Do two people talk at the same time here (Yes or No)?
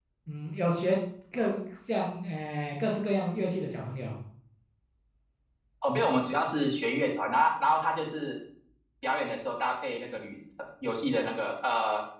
No